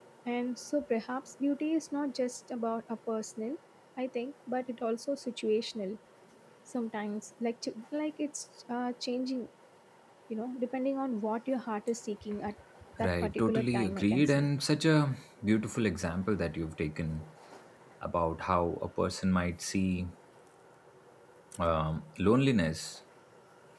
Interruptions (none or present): present